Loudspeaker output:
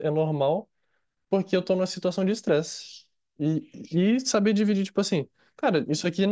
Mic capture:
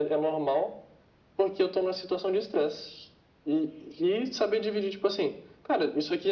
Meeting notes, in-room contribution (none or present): none